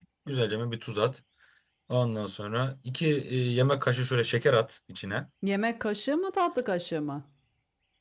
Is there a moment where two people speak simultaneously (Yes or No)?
No